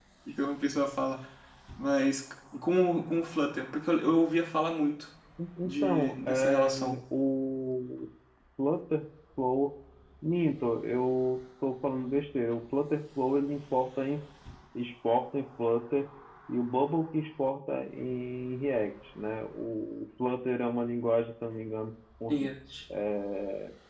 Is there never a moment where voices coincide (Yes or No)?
No